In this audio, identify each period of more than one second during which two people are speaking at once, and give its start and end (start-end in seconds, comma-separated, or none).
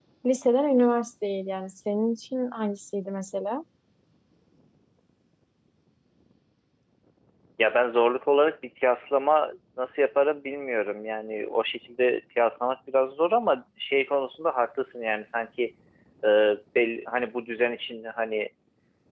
none